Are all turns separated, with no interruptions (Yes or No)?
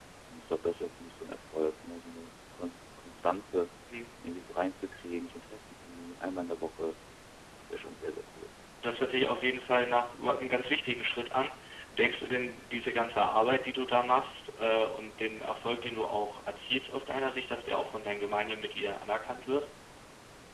Yes